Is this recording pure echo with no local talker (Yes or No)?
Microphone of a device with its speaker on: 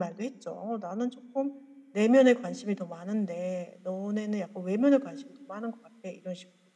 Yes